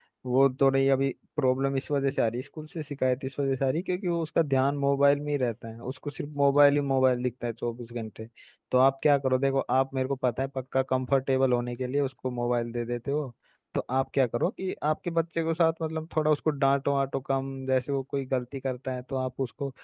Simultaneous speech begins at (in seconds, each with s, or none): none